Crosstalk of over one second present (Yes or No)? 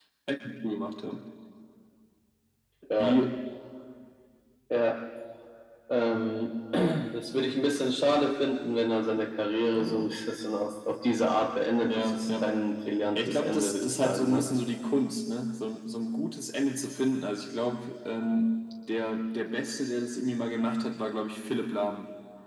Yes